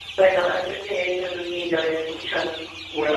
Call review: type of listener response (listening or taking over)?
taking over